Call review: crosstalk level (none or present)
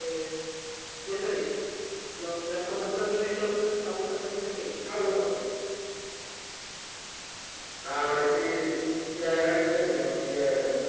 none